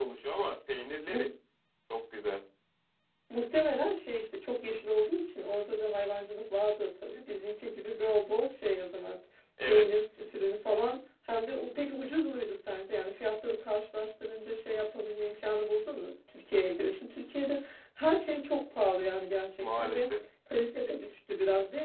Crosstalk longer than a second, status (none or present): none